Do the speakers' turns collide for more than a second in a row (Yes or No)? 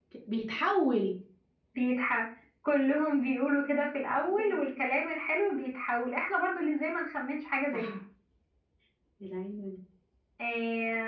No